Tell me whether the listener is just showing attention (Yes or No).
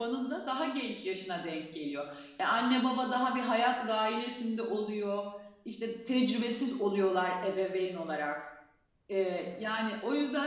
Yes